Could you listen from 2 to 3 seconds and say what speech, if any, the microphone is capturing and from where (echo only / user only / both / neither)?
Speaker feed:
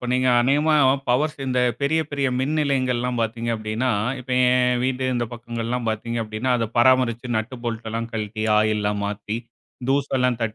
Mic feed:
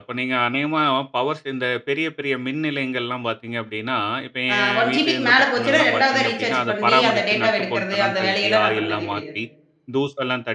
echo only